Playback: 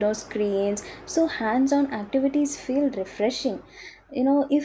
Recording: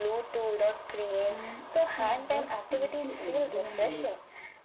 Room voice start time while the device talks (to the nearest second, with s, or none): 1 s